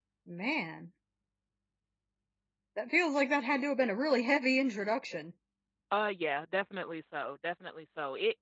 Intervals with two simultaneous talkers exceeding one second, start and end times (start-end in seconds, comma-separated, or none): none